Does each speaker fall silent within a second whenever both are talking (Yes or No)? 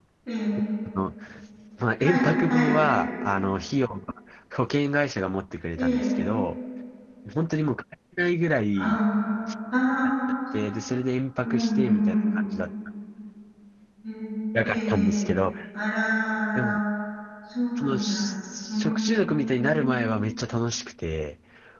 No